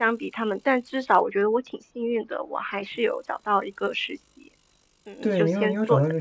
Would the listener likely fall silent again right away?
No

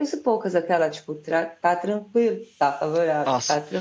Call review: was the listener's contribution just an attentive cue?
No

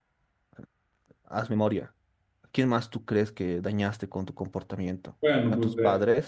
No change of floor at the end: No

